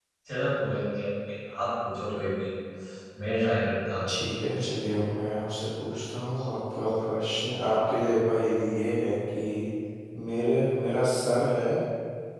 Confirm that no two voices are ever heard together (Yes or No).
Yes